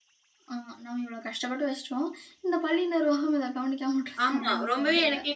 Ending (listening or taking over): taking over